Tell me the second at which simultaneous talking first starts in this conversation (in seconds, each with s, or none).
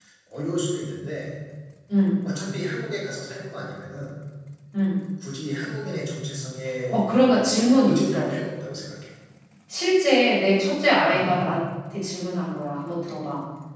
6.9 s